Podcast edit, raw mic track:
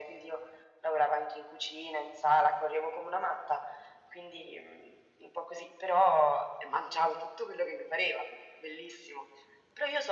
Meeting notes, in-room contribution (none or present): none